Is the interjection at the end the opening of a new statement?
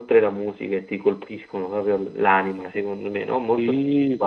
Yes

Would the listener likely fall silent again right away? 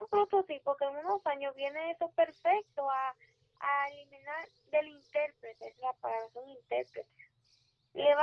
Yes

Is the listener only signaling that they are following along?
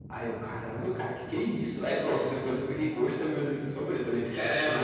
No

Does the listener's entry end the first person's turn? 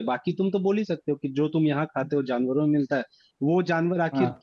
No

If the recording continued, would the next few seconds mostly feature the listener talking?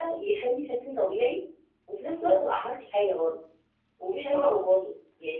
No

